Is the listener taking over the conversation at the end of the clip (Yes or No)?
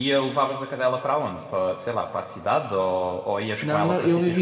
Yes